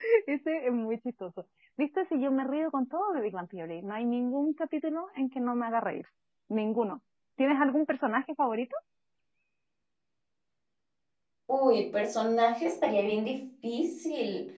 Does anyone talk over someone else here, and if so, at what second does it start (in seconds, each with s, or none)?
none